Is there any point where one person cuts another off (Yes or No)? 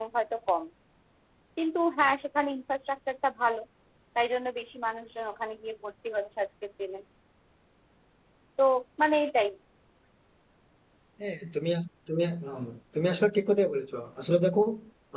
No